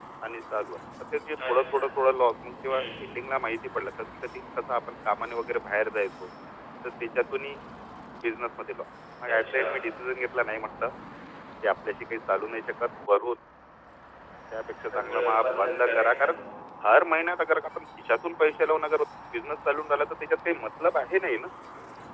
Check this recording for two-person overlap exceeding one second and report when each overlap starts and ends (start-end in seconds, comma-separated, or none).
14.9-16.3